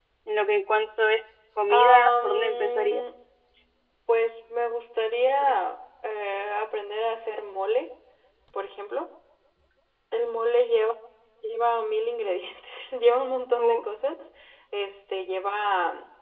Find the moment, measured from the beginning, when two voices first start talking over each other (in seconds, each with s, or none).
1.7 s